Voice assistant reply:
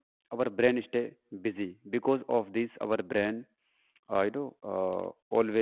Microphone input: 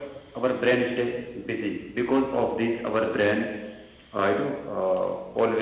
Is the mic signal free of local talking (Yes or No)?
Yes